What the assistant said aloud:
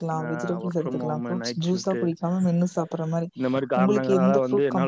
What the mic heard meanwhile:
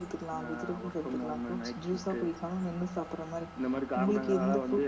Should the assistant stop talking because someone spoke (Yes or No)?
No